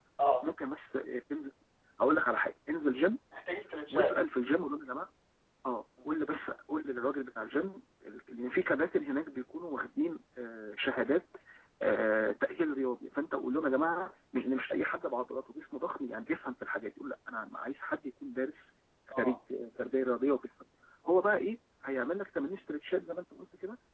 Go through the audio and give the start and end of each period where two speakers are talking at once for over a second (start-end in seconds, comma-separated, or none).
none